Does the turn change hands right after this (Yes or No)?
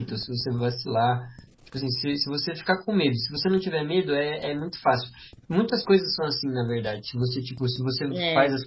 No